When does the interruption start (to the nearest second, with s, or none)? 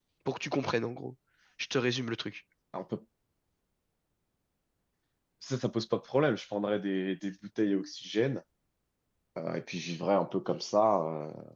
none